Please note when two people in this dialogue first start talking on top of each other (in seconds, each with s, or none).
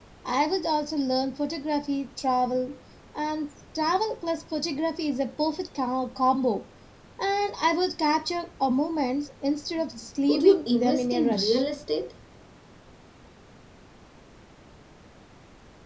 10.3 s